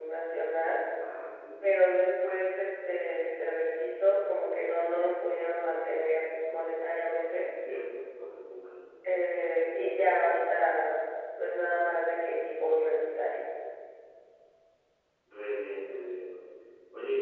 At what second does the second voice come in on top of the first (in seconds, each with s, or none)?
none